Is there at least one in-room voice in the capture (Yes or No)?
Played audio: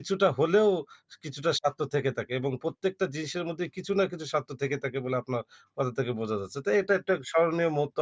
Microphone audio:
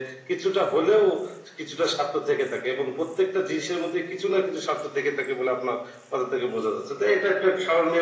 No